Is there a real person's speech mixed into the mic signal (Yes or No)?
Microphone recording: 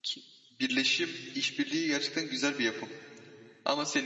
Yes